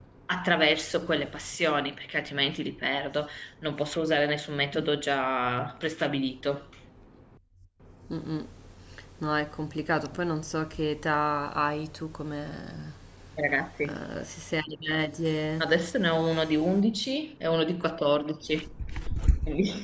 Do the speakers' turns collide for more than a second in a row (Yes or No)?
No